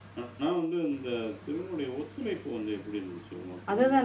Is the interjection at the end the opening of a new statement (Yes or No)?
Yes